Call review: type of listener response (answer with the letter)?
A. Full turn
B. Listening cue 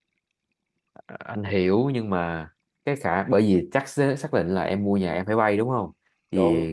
B